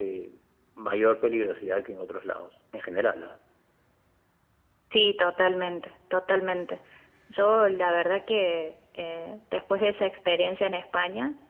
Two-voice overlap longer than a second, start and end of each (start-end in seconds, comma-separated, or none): none